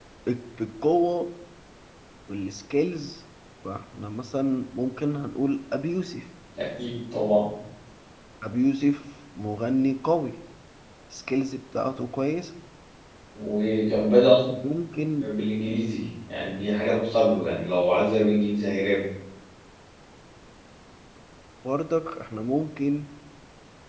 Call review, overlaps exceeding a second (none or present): none